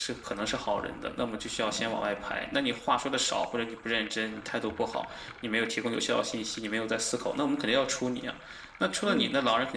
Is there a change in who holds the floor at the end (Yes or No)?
No